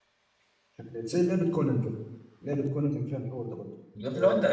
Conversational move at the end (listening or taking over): taking over